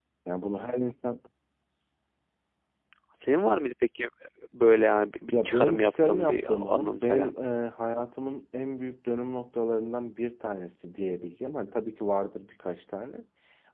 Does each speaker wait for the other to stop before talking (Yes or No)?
No